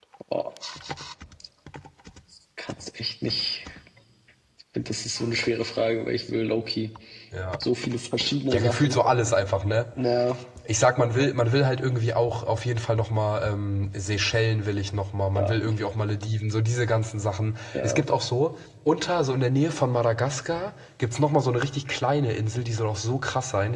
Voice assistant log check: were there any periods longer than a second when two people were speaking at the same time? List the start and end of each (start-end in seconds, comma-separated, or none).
none